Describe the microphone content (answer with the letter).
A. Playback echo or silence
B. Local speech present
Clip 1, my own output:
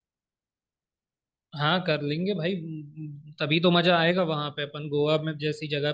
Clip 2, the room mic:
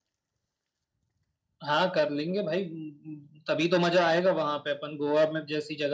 A